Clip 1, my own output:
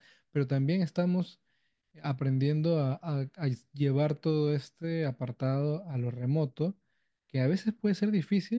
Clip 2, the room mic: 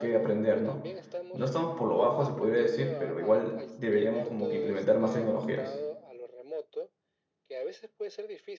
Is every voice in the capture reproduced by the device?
No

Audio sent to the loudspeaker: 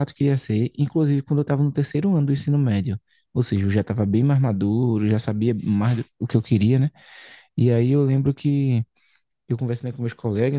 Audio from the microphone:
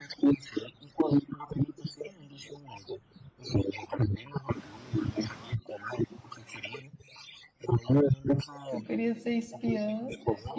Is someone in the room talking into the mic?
Yes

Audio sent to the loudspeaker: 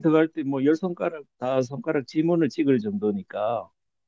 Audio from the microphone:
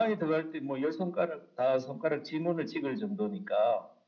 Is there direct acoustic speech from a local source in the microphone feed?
No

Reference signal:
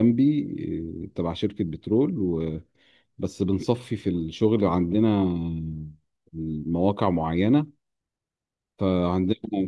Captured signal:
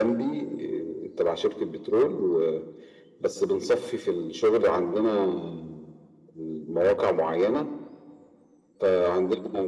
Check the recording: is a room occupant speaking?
No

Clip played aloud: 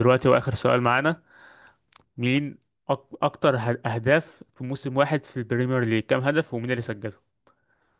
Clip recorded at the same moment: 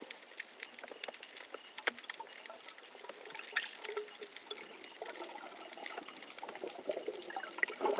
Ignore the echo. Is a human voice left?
No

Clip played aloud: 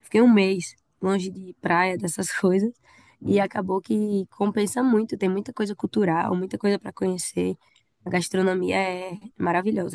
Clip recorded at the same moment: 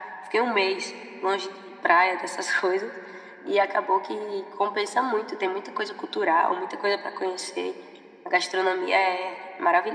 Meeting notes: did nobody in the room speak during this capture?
Yes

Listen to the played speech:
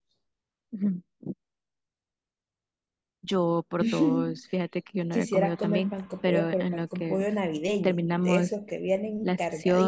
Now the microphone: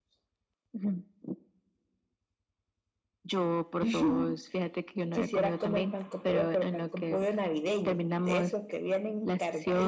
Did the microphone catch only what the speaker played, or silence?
Yes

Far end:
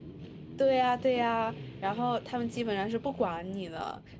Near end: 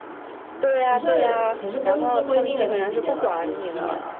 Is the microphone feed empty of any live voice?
No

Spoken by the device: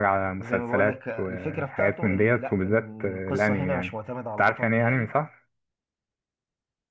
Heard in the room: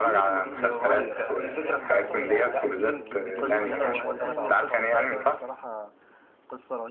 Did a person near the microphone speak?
Yes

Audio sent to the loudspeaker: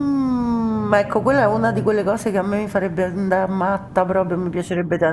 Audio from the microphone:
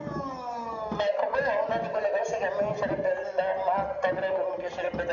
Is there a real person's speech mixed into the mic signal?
No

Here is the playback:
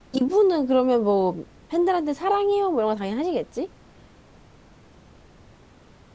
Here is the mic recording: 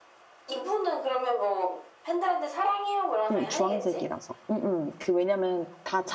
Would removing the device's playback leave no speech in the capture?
No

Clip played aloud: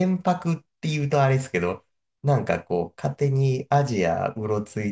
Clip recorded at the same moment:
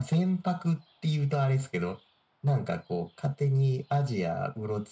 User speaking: No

